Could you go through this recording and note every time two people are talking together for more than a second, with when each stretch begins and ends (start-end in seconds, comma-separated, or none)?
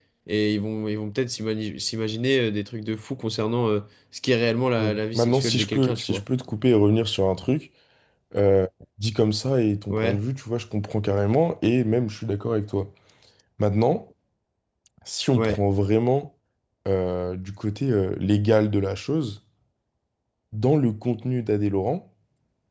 4.8-6.2